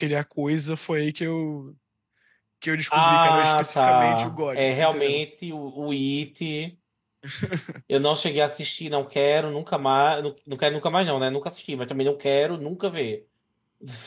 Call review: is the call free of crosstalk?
No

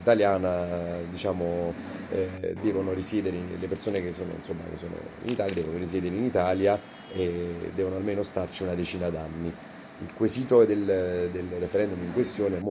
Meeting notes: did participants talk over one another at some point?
No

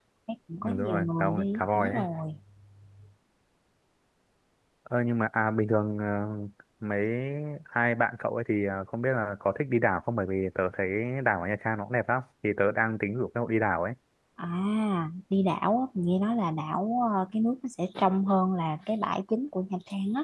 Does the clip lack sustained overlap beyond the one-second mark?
No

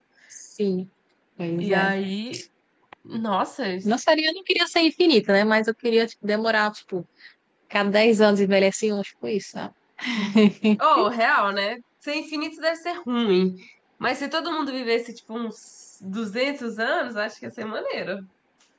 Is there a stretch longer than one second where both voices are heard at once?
No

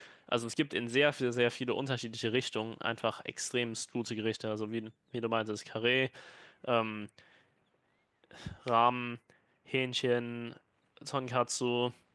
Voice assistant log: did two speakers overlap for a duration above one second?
No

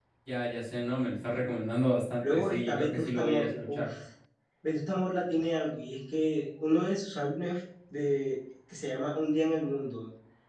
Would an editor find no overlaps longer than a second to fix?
No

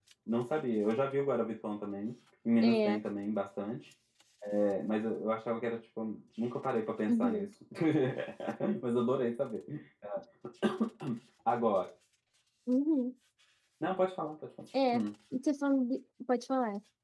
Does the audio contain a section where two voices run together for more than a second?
No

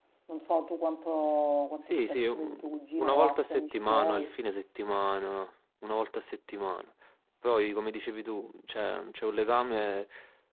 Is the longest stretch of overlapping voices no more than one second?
No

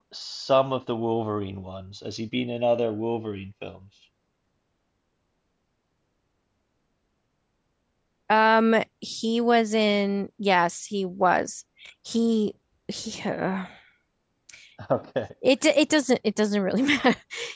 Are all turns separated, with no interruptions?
Yes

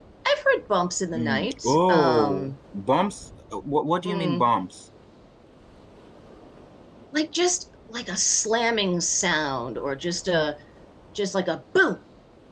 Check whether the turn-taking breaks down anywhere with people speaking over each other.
Yes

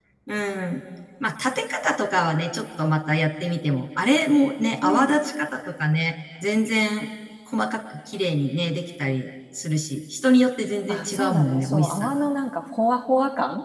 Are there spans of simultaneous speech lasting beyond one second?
Yes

